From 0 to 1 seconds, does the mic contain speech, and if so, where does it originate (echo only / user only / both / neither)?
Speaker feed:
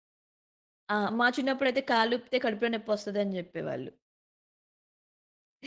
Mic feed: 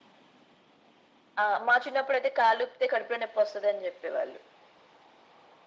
neither